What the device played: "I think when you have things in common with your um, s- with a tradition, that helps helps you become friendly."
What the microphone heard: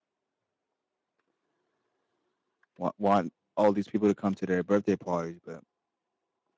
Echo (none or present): none